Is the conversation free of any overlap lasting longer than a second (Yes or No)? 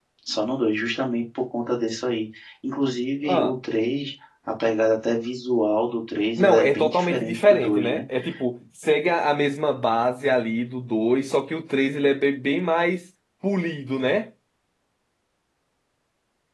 No